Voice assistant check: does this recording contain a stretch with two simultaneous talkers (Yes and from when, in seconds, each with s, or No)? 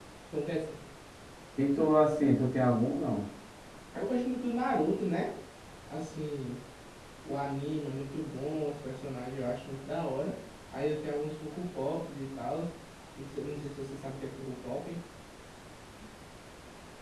No